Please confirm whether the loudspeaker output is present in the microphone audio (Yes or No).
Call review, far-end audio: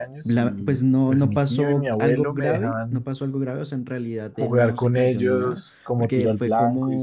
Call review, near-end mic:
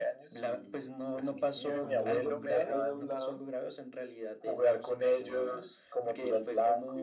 Yes